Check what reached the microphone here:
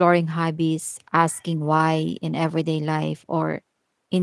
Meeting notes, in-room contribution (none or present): present